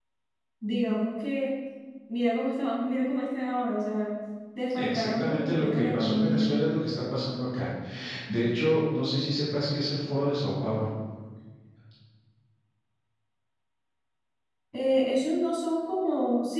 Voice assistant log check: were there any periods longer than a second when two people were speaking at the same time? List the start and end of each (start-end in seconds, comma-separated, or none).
4.8-6.5